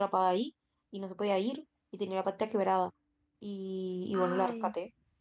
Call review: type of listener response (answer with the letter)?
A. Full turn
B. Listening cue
B